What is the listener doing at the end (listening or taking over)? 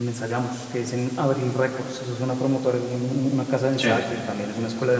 listening